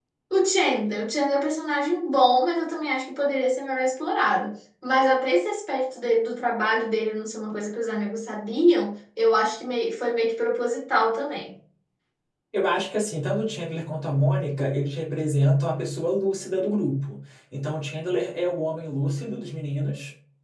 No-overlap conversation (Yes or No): Yes